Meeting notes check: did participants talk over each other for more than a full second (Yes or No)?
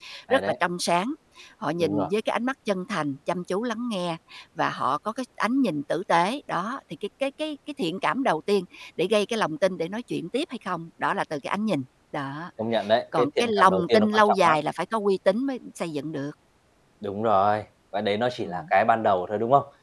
Yes